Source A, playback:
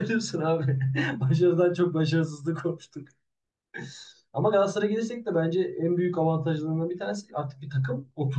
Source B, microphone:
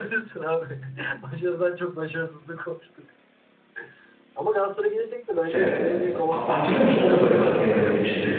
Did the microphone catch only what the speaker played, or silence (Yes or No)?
No